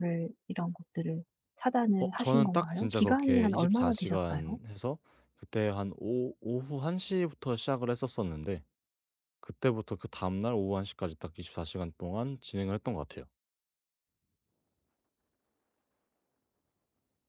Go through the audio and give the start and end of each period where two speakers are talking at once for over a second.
2.2-4.6

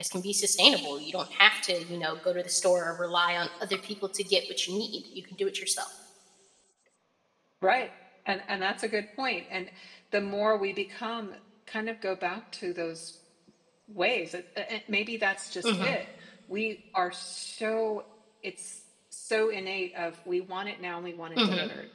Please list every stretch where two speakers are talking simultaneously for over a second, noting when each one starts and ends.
none

